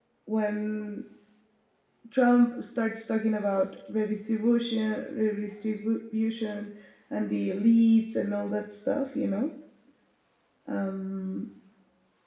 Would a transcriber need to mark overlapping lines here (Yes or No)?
No